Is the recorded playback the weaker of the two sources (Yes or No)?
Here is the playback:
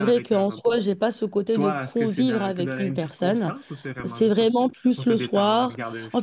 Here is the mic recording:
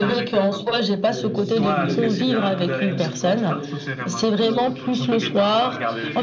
No